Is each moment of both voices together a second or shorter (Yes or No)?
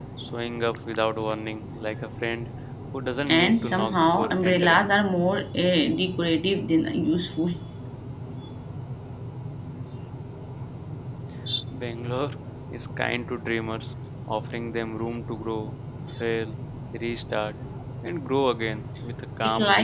No